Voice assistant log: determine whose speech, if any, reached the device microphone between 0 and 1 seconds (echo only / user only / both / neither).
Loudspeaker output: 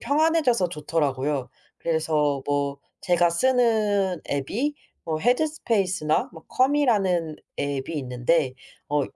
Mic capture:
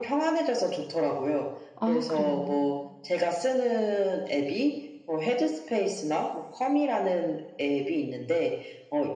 echo only